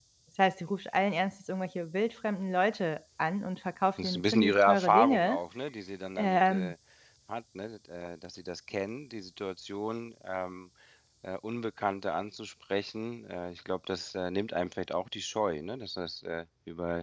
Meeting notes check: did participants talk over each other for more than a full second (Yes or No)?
Yes